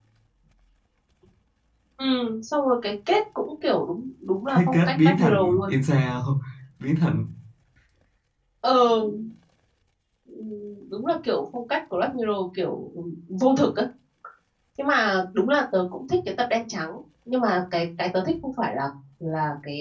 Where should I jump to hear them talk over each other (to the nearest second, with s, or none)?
4 s